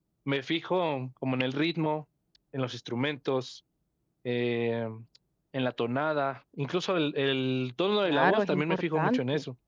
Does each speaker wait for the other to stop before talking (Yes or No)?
No